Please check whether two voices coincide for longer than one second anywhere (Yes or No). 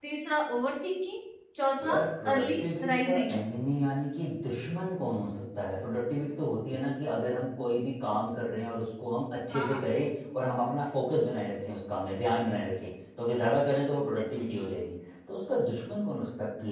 Yes